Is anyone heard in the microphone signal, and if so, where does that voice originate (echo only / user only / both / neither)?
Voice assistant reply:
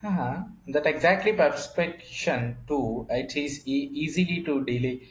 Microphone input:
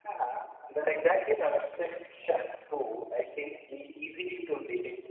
echo only